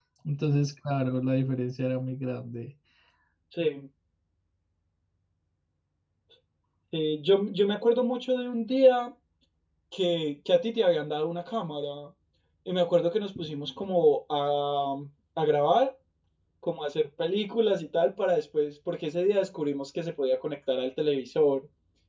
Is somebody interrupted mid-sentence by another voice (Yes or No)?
No